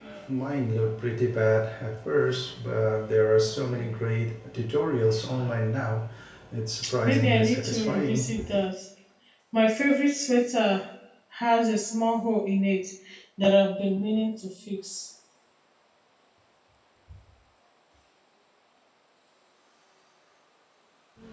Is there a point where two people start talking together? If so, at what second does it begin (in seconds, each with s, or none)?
7.0 s